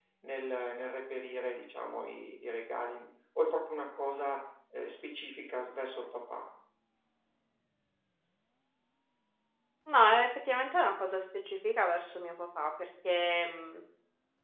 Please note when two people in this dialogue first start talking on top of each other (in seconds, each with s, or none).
none